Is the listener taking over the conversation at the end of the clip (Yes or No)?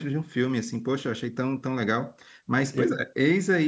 No